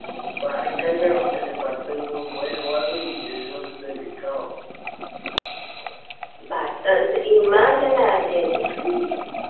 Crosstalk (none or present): none